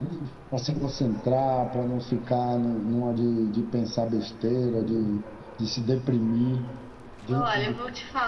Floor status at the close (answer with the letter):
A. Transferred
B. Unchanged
A